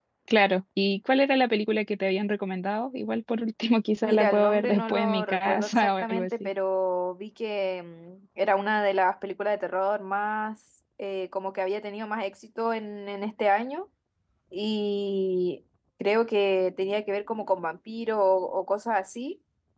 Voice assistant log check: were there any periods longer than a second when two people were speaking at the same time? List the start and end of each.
4.0-6.5

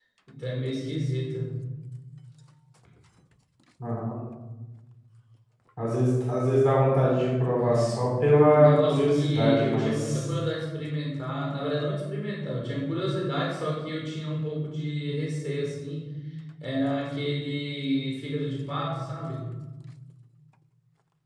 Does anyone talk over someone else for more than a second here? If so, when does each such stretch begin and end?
8.5-10.2

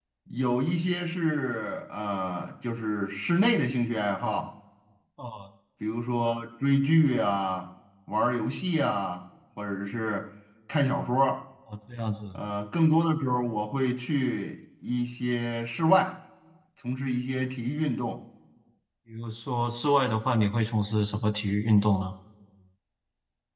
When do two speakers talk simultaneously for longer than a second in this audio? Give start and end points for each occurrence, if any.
none

